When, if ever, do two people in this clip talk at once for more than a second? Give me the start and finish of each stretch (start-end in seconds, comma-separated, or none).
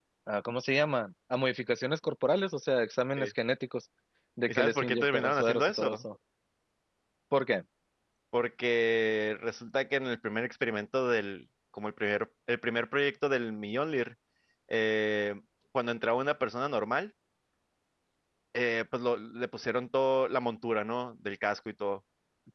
4.5-6.0